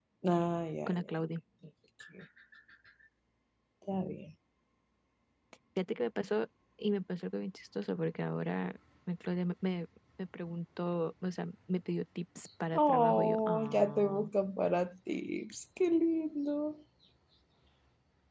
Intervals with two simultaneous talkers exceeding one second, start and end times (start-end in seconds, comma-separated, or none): 12.9-14.2